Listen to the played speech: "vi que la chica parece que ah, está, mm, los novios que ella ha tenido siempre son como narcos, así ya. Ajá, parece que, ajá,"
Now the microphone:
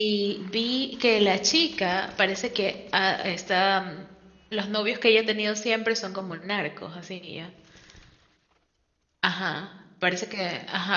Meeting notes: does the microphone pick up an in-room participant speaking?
No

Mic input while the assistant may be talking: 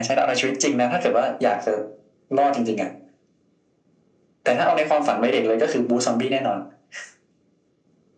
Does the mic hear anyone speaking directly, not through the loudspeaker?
No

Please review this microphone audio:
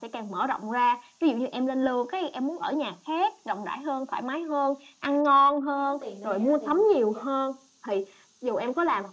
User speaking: Yes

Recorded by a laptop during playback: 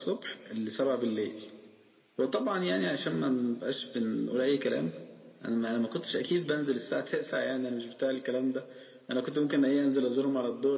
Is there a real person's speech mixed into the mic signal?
No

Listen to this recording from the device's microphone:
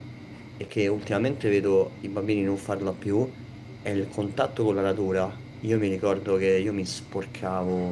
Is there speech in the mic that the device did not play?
Yes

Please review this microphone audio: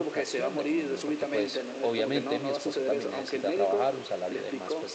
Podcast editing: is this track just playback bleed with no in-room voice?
No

